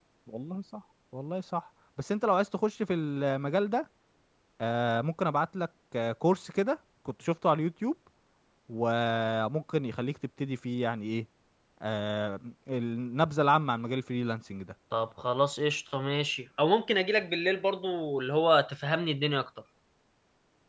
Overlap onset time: none

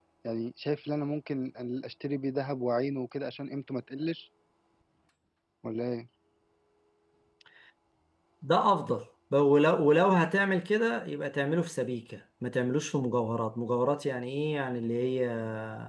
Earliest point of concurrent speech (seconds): none

